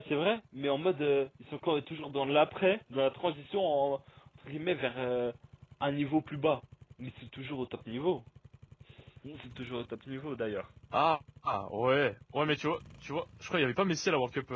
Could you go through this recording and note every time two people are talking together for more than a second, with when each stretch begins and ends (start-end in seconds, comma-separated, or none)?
none